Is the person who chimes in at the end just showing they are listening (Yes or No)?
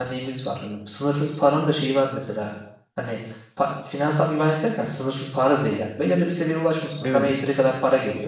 Yes